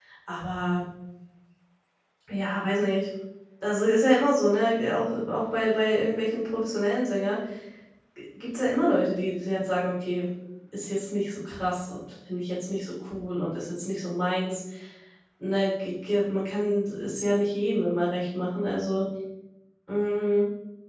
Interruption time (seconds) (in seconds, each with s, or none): none